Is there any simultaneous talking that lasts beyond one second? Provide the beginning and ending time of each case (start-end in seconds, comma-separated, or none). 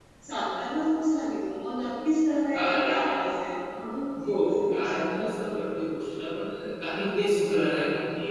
4.3-5.6